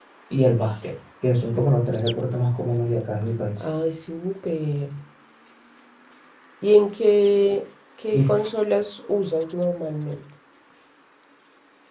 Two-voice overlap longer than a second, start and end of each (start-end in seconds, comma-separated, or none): none